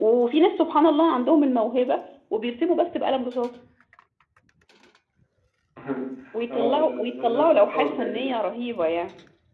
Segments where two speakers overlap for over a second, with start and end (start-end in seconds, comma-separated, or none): 6.5-8.3